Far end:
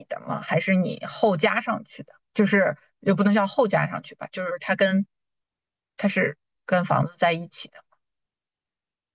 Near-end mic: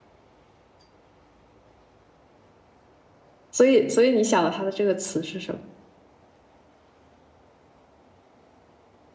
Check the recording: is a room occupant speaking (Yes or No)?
Yes